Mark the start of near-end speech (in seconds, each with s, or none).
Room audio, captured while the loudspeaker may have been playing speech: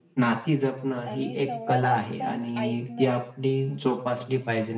1.1 s